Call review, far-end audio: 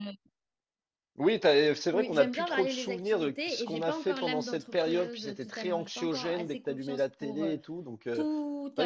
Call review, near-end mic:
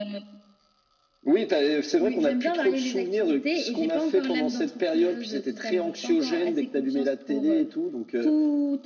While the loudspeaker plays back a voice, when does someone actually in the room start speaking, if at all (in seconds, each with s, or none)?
none